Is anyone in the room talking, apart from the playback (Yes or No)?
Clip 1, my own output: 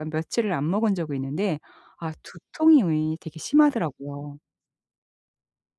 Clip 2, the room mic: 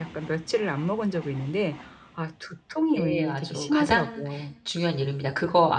Yes